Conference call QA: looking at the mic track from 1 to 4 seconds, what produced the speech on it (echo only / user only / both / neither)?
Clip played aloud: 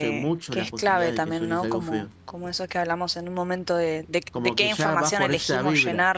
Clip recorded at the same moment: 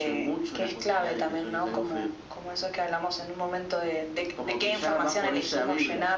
echo only